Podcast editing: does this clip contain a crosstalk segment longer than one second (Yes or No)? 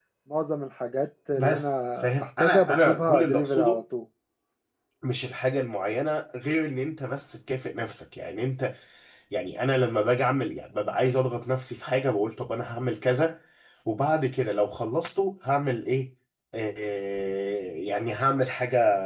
Yes